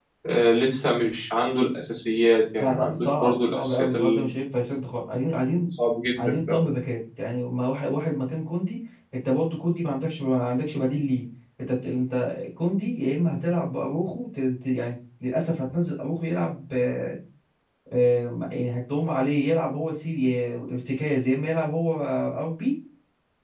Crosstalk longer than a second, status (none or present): present